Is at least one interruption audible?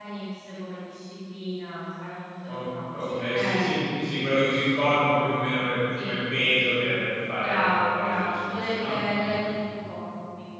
Yes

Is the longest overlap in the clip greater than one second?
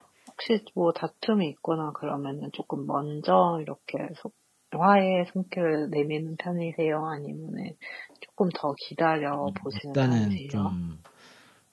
Yes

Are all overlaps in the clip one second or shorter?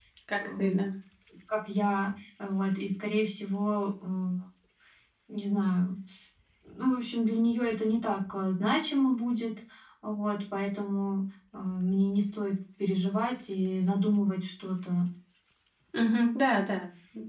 Yes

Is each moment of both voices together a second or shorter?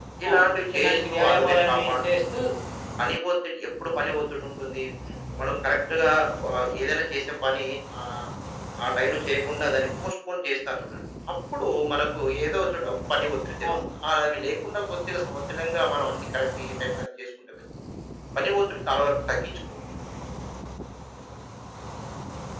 No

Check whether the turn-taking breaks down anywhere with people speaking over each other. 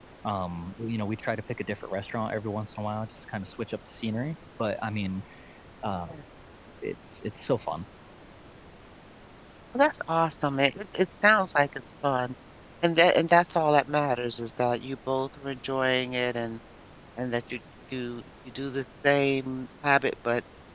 No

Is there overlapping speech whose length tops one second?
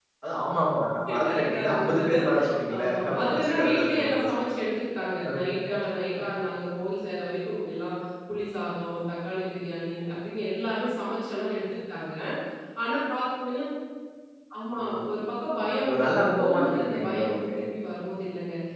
Yes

